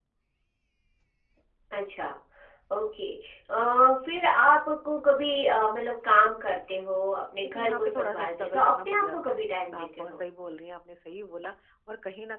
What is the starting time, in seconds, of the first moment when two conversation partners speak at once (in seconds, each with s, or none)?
7.4 s